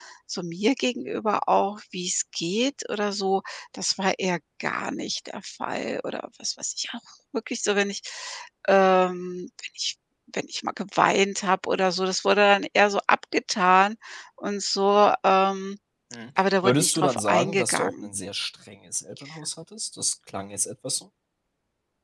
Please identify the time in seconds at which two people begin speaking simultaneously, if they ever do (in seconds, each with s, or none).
16.6 s